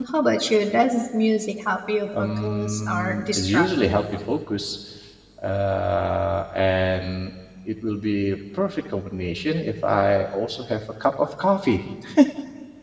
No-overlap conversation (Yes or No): No